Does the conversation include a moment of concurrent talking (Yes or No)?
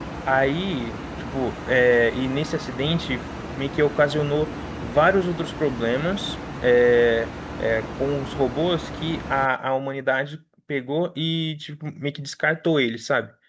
No